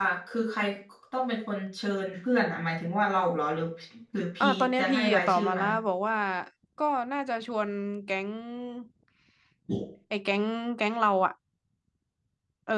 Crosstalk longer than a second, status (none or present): present